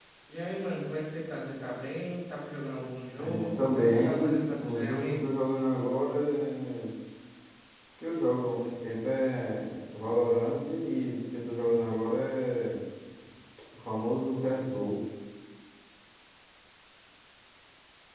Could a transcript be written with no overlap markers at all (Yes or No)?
No